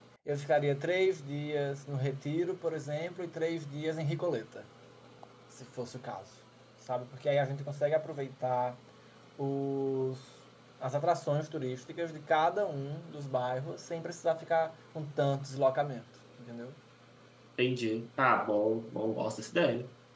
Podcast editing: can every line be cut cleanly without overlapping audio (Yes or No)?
Yes